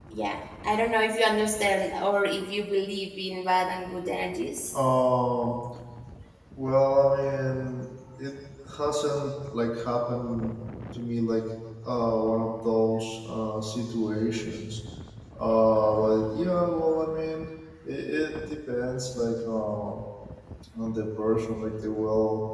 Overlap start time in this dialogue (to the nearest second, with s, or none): none